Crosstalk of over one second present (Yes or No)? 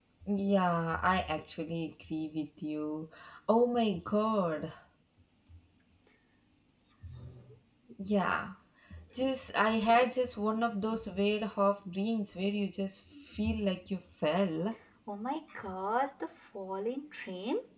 No